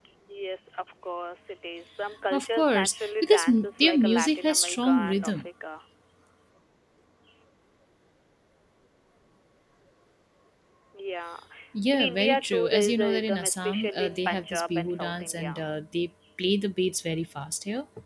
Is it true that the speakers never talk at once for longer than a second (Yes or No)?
No